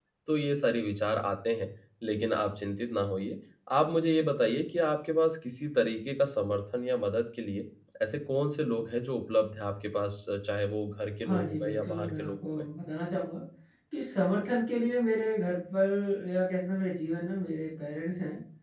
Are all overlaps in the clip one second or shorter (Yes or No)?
No